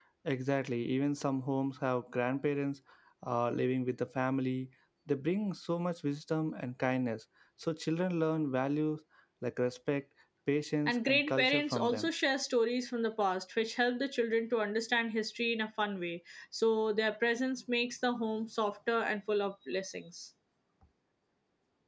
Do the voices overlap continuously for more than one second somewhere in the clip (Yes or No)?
Yes